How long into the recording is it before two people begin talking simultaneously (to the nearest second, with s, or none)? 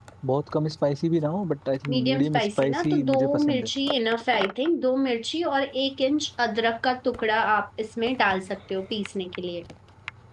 2 s